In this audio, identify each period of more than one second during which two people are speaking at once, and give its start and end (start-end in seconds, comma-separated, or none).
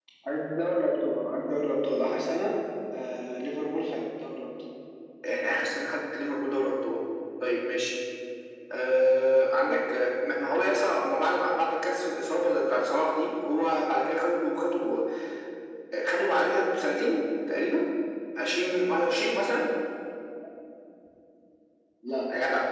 none